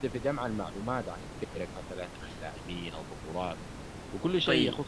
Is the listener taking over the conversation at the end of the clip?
No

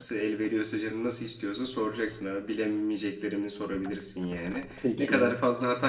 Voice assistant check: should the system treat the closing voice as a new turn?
No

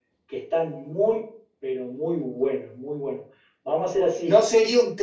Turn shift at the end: Yes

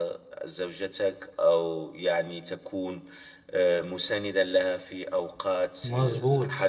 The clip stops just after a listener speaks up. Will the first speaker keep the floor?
Yes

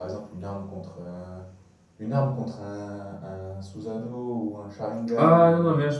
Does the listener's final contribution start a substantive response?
Yes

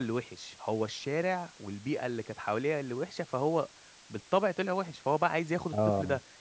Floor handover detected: No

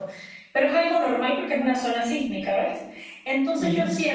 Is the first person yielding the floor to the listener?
No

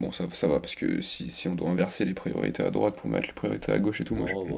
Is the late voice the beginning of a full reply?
Yes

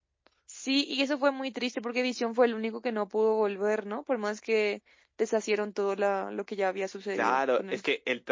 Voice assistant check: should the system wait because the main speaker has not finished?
No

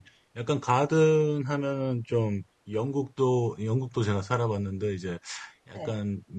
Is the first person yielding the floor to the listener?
No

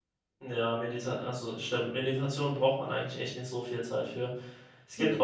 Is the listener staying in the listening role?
Yes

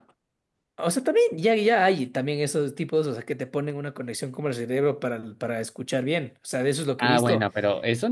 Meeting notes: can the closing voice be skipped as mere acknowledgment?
No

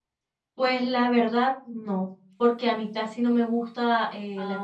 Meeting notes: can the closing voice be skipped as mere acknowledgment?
Yes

